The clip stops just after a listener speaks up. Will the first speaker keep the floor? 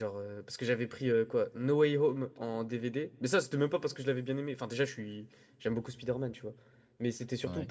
Yes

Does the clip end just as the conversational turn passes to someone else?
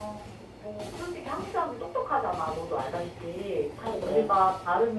No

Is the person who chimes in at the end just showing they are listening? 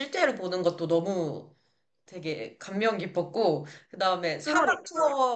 Yes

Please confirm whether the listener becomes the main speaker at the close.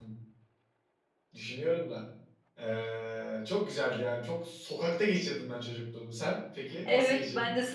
Yes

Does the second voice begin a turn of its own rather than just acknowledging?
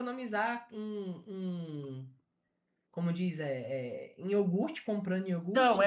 Yes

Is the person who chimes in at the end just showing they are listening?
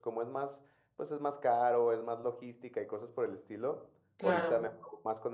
Yes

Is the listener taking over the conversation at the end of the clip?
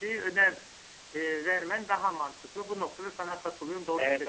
Yes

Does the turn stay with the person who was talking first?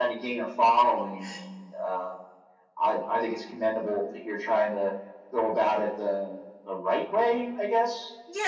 No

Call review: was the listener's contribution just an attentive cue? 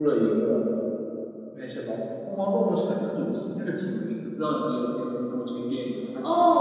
No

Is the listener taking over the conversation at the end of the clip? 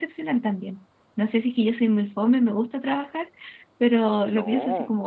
No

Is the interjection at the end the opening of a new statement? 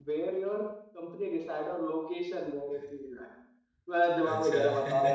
No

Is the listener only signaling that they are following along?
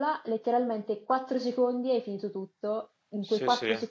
Yes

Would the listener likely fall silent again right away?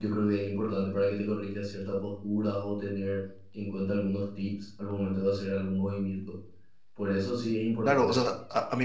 No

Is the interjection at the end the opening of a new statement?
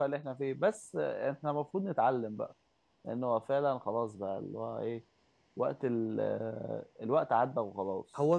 Yes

